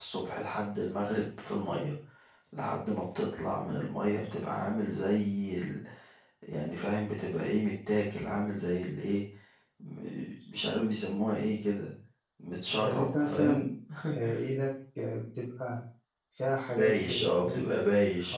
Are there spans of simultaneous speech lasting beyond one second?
Yes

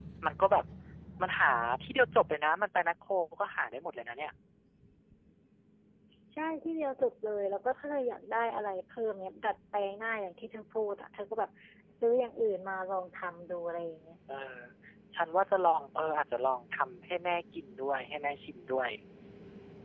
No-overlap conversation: Yes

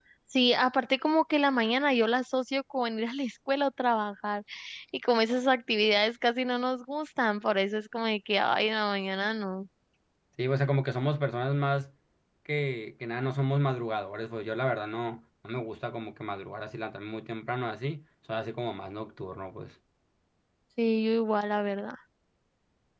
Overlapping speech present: No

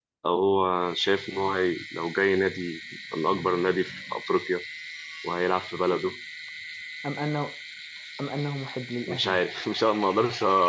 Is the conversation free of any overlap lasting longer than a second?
Yes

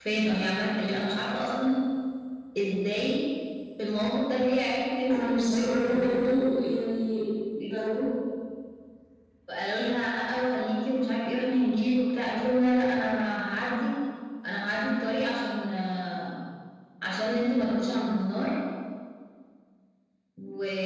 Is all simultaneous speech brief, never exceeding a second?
No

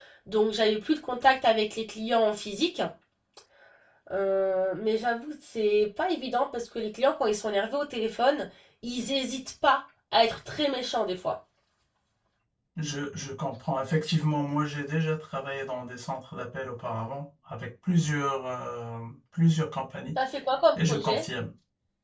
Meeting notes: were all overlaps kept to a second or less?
Yes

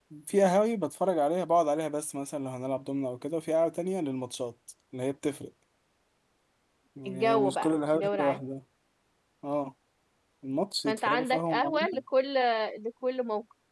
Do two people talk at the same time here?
Yes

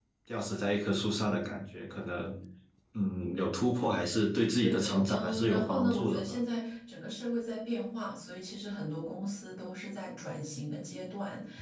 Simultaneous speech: Yes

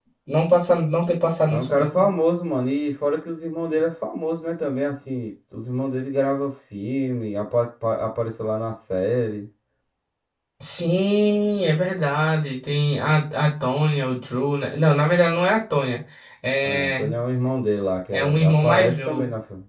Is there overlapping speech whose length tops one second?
Yes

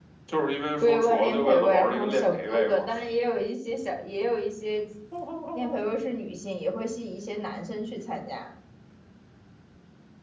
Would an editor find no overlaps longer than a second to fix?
No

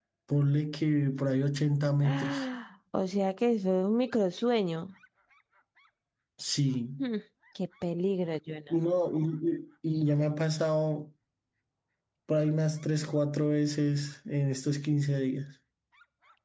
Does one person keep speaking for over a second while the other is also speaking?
No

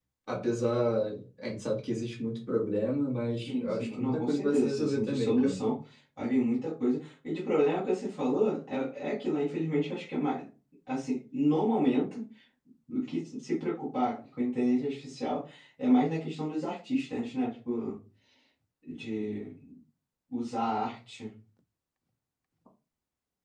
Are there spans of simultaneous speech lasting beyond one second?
Yes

